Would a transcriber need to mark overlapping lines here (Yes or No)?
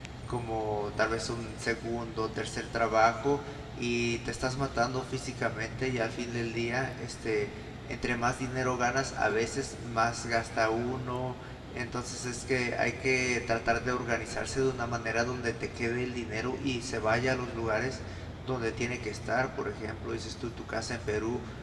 No